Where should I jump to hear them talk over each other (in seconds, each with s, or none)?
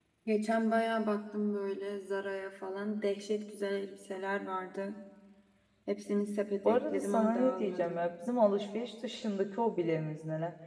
6.6 s